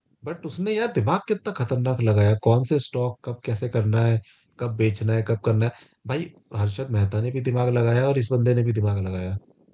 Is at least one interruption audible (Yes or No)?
No